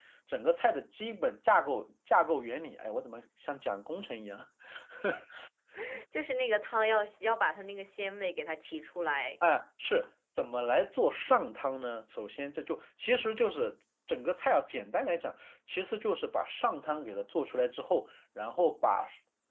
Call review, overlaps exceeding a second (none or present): none